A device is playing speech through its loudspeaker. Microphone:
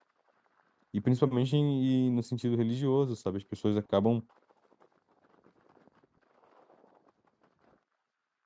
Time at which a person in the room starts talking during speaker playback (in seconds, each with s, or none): 0.9 s